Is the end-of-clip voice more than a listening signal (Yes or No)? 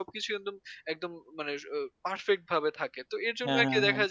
No